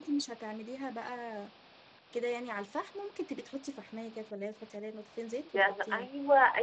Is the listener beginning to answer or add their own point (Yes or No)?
Yes